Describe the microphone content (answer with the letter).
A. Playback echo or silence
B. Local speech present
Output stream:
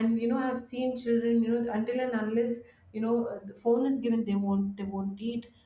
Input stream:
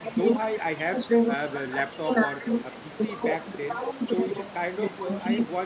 B